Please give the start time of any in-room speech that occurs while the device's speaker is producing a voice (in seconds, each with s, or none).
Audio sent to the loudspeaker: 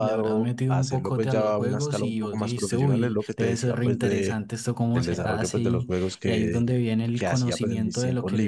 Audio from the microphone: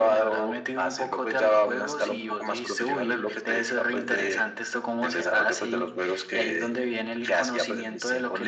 none